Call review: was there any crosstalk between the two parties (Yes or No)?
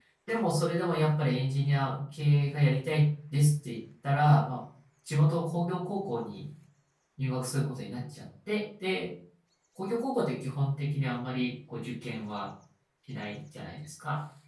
No